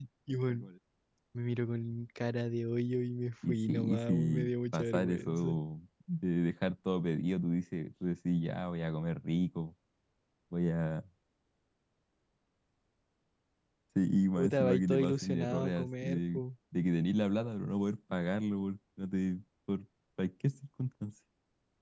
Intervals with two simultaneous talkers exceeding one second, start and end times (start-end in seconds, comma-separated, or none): 3.5-5.5, 14.4-16.4